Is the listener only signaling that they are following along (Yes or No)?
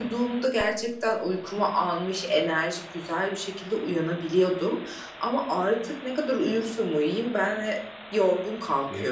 Yes